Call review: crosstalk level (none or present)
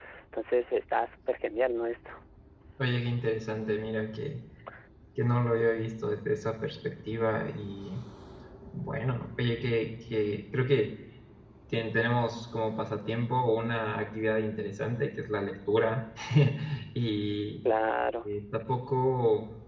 none